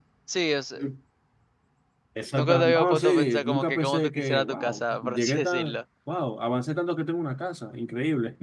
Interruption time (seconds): 2.3 s

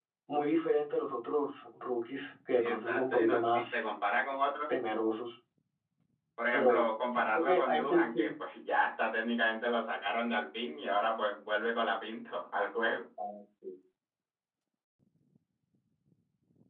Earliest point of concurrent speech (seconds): 2.6 s

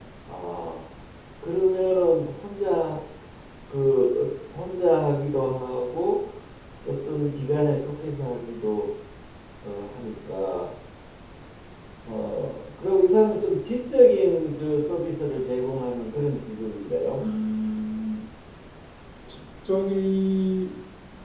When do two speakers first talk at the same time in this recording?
none

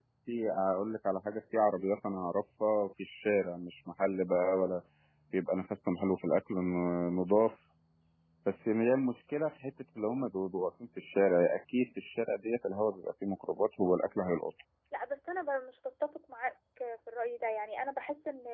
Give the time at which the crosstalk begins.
none

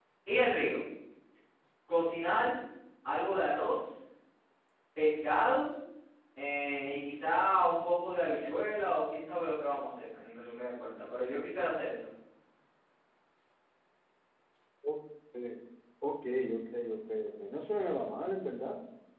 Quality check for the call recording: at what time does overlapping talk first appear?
none

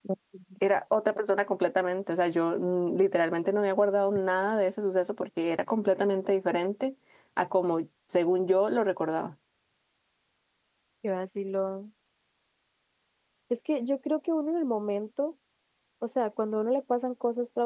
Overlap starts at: none

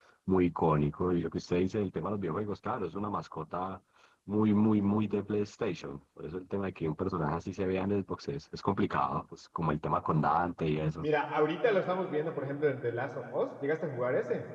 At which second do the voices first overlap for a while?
none

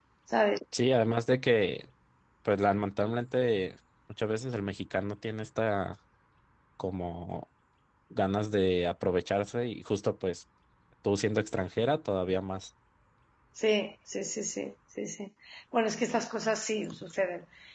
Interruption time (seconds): none

